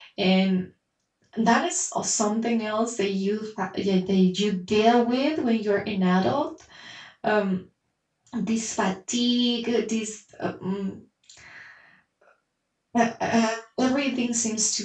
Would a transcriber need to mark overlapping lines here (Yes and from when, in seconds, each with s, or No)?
No